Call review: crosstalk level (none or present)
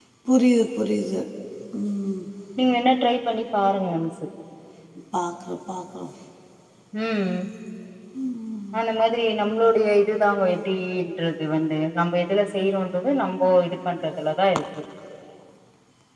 none